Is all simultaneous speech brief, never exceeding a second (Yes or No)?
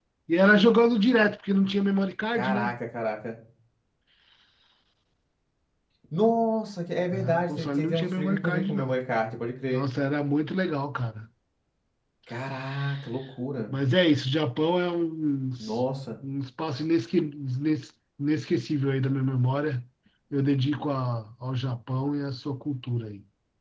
No